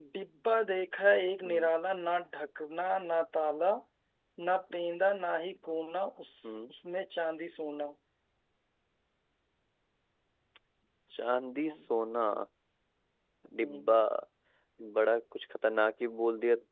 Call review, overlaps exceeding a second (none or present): none